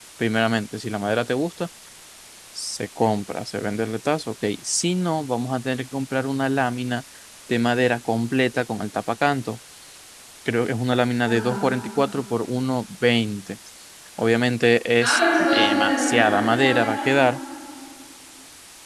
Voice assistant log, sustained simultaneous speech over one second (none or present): present